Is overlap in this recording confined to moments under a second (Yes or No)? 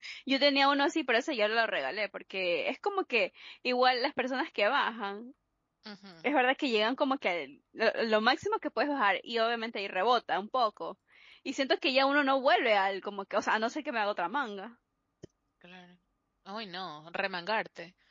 Yes